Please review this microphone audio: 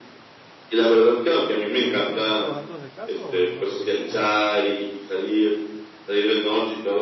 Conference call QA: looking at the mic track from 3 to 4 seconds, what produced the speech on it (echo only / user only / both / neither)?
both